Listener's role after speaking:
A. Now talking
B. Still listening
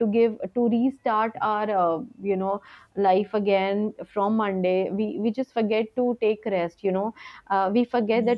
B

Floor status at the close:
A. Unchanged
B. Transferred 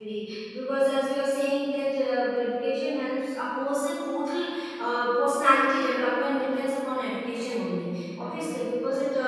A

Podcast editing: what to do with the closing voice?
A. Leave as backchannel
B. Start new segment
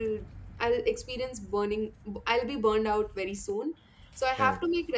A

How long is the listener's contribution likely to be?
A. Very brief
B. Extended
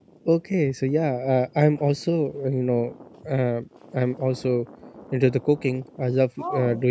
A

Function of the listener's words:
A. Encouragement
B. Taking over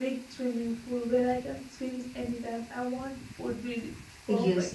B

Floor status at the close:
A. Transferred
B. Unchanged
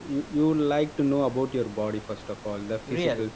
B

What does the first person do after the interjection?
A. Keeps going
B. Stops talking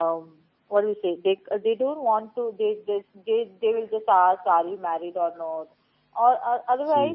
A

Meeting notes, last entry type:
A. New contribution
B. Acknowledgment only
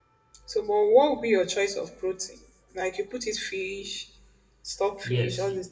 A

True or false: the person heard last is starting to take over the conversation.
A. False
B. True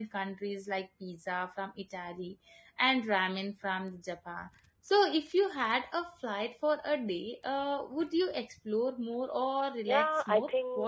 B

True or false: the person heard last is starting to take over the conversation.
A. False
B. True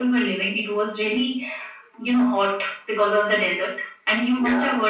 A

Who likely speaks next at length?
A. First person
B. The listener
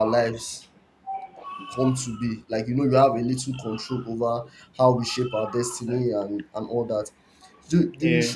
A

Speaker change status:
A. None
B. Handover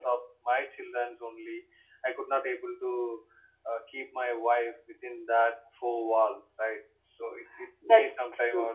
A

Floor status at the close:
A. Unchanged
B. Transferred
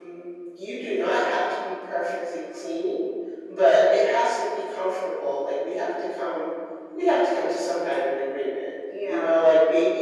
A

